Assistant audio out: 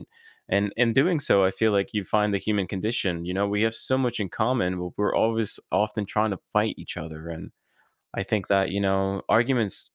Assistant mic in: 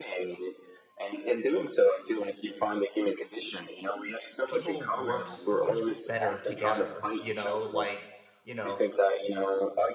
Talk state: both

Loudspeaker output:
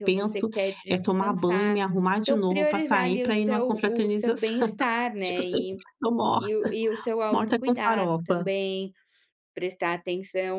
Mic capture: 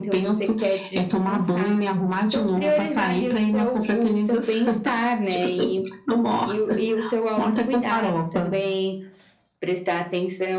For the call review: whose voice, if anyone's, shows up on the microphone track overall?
echo only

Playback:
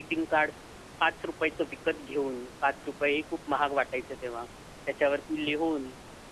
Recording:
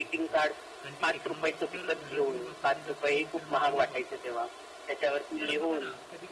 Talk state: both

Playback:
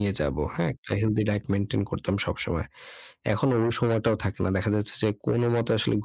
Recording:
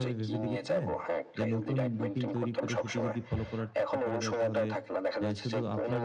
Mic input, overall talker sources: both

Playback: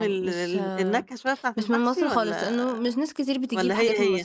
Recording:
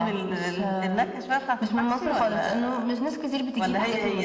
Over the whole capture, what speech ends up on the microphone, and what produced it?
echo only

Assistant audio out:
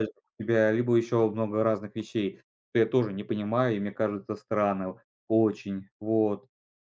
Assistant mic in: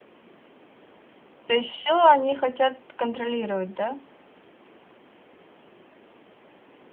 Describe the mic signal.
user only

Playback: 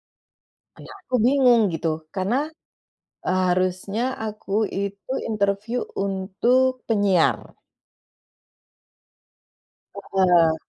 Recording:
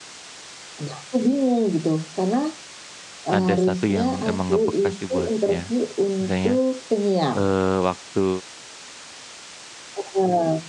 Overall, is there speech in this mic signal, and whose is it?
both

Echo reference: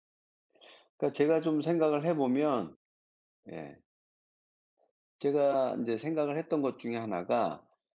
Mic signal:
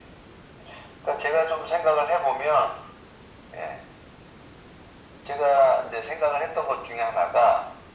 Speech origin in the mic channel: echo only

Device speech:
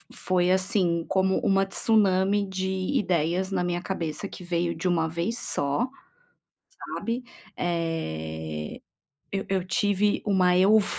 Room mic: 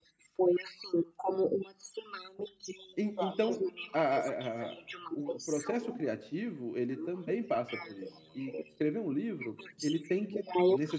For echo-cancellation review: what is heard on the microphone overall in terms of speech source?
both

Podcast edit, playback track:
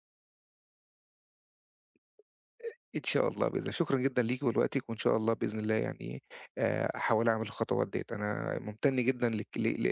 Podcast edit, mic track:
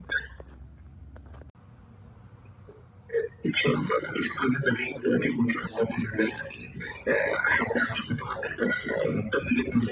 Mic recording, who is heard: echo only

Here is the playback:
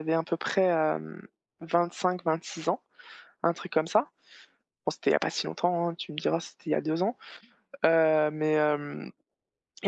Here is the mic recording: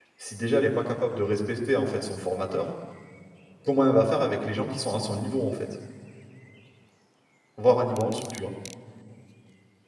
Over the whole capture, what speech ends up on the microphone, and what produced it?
user only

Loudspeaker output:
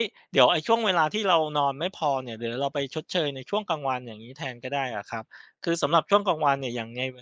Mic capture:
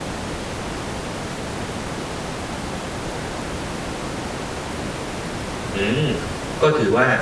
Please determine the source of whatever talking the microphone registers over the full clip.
user only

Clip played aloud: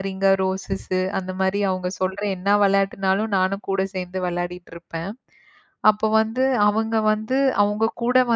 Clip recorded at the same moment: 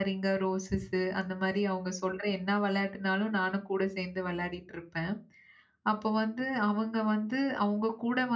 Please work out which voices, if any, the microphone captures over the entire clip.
echo only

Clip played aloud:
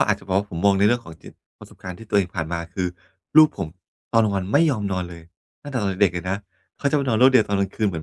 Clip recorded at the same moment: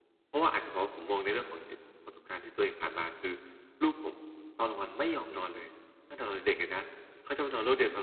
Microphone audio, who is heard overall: echo only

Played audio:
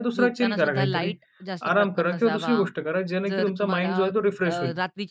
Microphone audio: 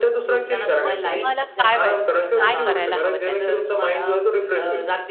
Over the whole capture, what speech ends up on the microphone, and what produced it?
both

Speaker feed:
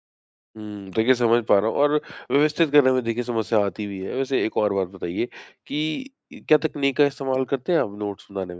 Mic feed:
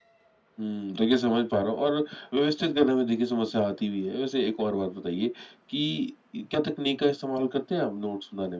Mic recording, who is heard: echo only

